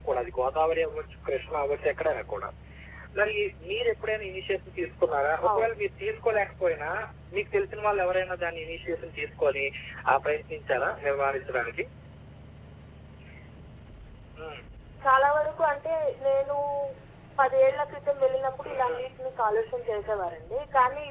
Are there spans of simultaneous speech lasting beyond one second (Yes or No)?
No